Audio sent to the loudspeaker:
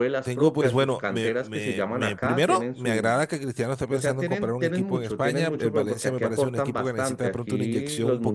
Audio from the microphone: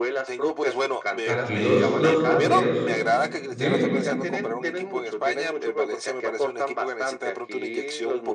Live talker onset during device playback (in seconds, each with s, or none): 1.2 s